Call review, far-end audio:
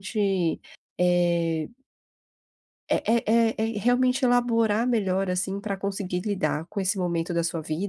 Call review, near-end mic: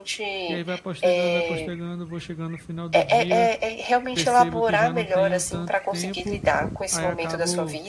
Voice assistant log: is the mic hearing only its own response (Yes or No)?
No